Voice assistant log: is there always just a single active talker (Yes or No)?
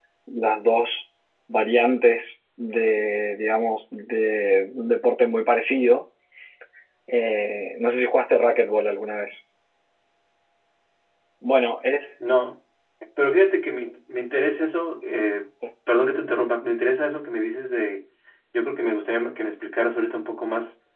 Yes